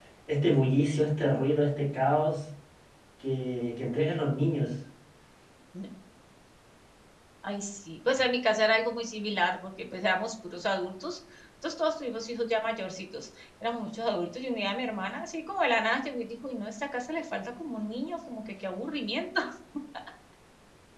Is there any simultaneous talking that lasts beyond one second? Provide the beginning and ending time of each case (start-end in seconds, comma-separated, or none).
none